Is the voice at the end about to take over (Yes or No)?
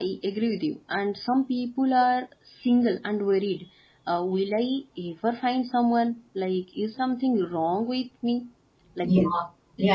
Yes